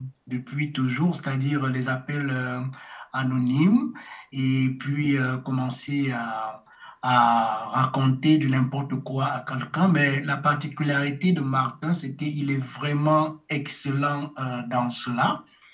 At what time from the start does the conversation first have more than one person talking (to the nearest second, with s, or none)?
none